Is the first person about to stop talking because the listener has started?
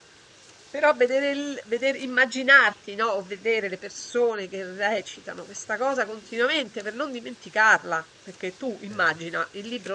No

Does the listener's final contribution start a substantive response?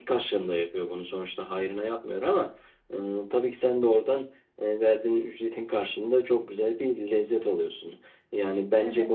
No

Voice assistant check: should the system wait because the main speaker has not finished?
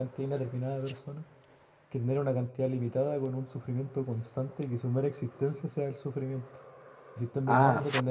Yes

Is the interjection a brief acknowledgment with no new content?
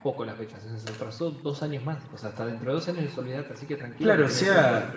No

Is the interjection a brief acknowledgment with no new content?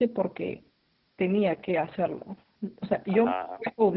Yes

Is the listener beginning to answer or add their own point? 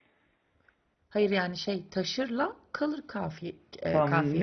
Yes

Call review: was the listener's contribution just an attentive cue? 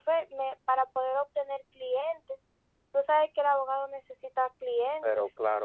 No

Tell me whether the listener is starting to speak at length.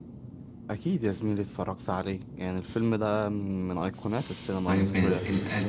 Yes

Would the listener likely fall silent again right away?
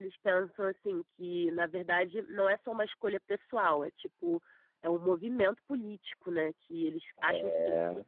Yes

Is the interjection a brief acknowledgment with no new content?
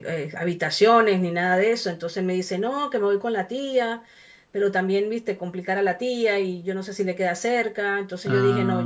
Yes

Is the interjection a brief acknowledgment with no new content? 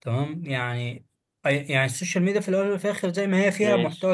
Yes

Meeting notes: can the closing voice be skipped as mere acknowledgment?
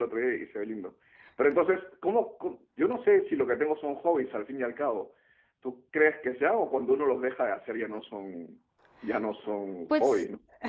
No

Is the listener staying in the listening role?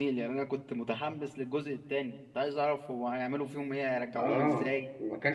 No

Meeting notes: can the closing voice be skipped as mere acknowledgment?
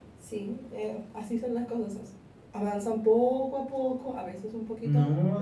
No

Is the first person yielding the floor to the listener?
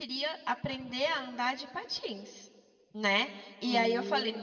No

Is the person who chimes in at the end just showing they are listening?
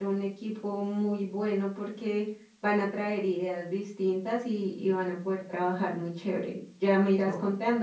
Yes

